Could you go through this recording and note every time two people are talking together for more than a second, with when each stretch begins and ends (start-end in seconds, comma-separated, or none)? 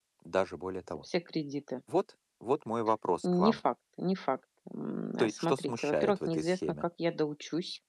5.2-6.8